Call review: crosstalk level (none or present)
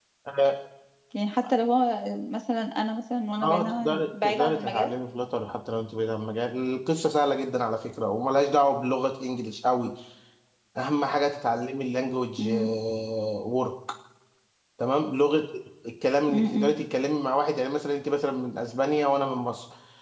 present